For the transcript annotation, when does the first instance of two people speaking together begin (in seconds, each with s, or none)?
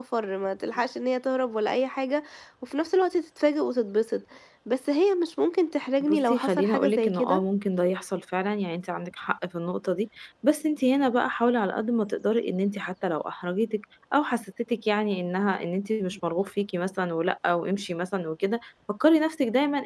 6.0 s